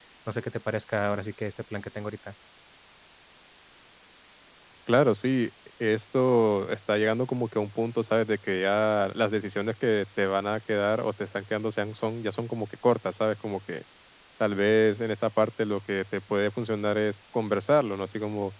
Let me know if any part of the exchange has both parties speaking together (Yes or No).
No